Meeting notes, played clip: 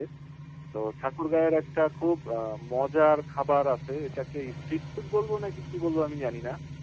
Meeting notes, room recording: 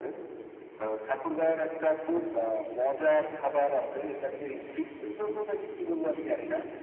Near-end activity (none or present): present